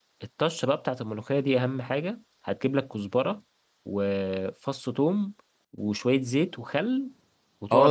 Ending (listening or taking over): taking over